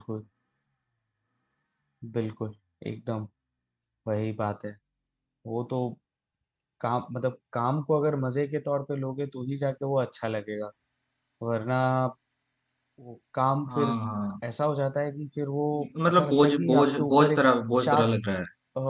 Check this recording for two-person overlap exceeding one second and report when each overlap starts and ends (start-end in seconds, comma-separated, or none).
16.1-17.4